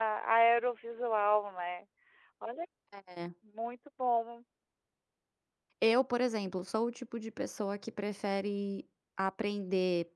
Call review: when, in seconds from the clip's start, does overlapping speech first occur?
none

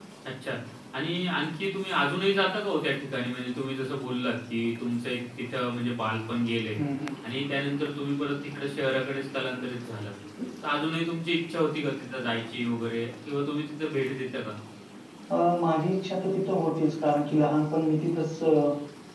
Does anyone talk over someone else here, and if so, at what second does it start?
none

